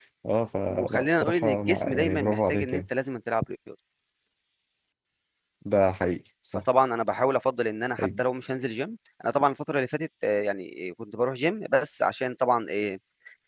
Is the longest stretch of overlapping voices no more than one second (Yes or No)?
No